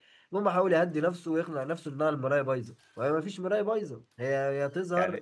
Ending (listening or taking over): taking over